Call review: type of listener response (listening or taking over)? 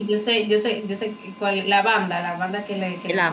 taking over